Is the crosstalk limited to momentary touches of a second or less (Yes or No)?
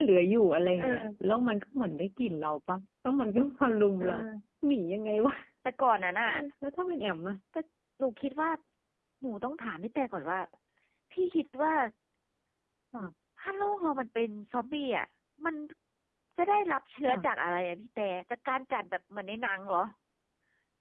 Yes